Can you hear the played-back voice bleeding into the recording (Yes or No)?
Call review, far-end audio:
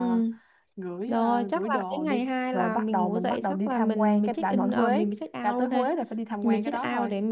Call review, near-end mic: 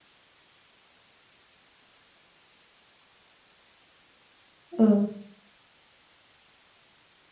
No